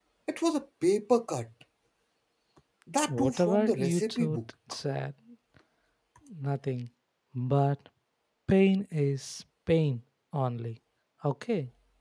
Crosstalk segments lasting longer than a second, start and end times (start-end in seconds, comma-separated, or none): 3.1-4.4